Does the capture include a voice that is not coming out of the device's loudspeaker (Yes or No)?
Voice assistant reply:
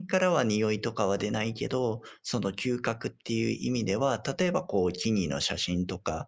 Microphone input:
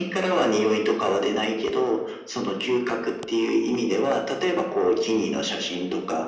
No